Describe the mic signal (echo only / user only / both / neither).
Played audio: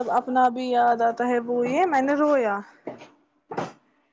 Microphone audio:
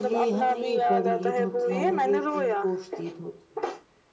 both